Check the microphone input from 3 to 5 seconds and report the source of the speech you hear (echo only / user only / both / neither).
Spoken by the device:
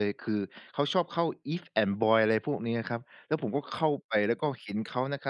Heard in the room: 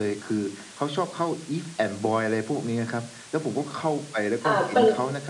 both